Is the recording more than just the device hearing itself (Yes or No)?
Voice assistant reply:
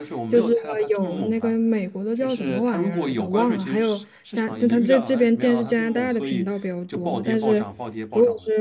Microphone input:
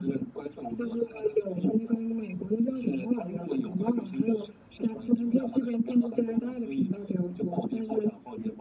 No